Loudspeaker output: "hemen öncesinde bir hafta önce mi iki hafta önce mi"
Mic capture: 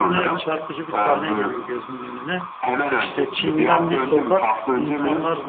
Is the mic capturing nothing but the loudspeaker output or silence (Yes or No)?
No